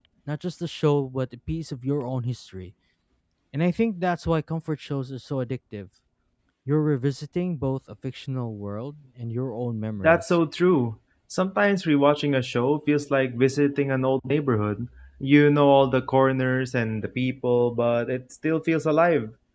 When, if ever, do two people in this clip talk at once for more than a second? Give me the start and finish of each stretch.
none

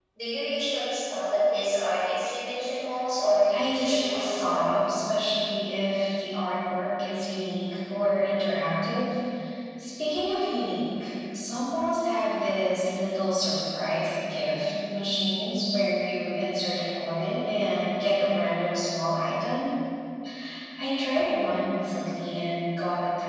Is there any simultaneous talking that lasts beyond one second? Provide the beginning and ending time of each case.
3.5-4.8

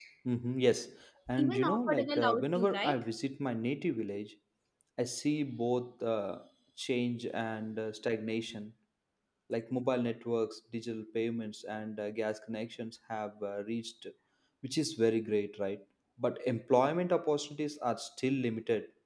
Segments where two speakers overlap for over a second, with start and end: 1.3-3.0

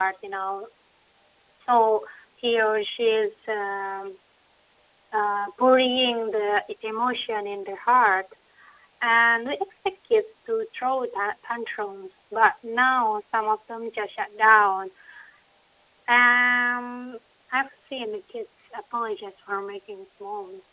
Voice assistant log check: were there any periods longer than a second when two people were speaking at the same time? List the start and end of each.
none

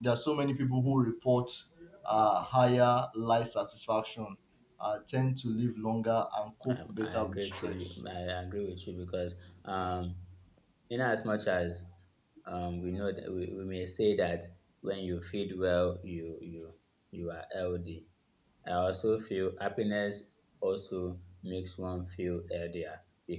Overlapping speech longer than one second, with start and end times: 6.7-8.0

